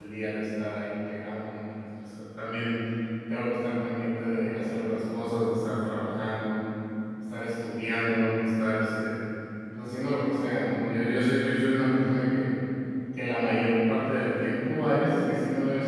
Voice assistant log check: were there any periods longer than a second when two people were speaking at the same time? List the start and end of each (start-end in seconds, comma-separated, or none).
none